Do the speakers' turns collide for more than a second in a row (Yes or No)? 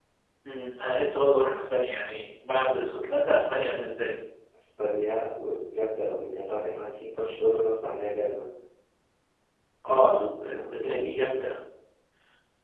Yes